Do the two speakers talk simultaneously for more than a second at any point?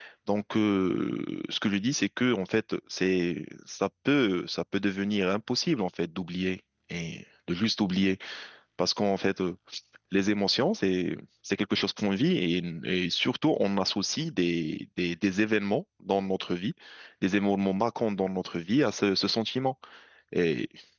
No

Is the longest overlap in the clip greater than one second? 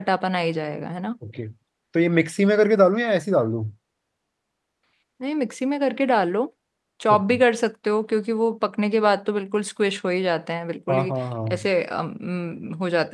No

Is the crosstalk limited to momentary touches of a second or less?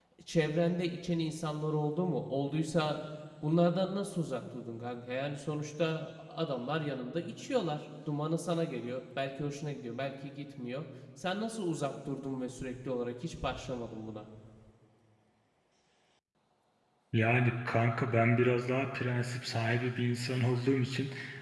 Yes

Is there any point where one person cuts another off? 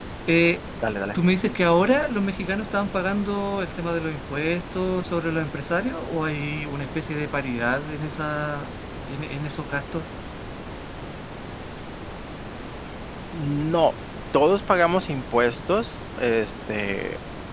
No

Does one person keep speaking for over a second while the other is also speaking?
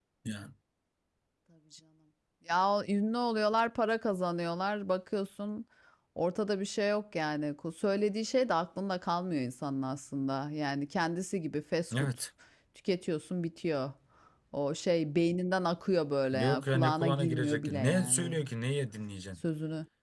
Yes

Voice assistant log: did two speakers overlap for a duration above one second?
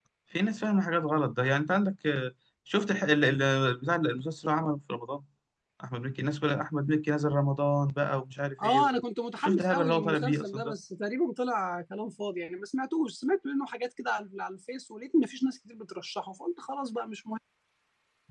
Yes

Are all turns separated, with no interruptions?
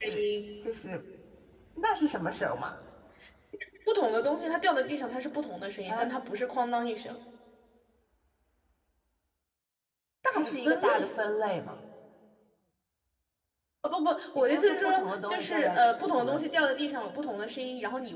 No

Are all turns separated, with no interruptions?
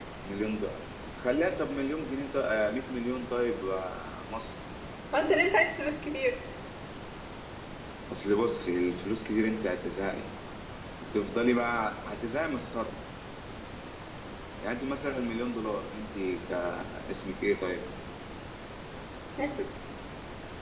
Yes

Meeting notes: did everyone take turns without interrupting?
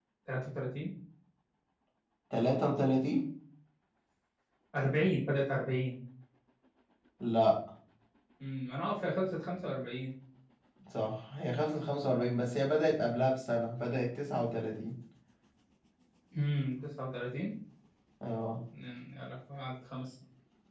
Yes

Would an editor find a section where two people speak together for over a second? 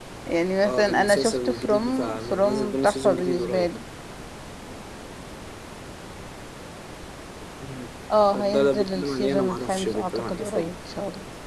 Yes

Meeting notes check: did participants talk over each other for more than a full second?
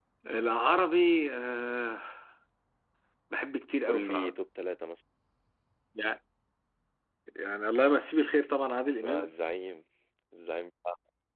No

